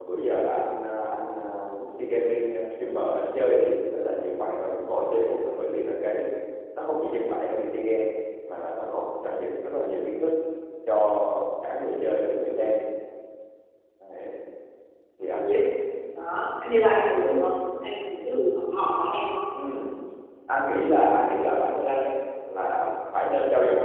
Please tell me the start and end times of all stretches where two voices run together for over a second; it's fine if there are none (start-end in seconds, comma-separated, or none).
none